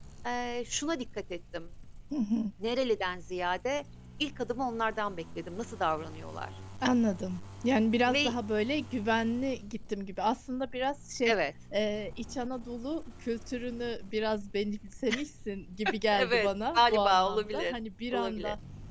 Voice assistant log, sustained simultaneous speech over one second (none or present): present